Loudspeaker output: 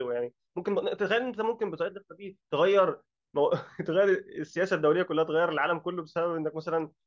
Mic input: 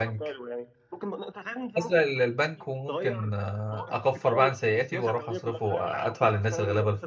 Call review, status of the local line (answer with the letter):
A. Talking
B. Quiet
A